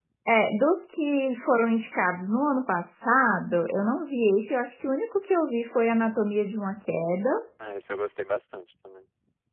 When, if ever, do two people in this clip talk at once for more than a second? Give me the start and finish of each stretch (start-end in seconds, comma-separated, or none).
none